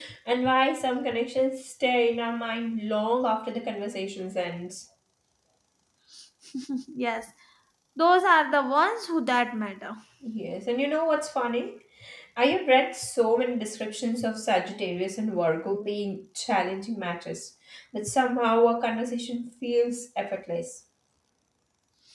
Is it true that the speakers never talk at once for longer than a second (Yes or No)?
Yes